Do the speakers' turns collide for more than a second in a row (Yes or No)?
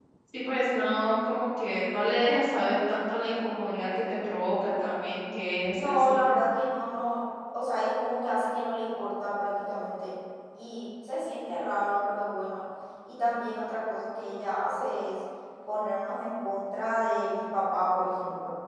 No